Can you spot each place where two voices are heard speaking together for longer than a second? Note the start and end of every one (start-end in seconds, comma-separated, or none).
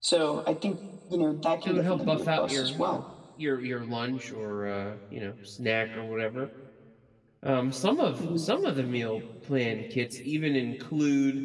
1.6-3.0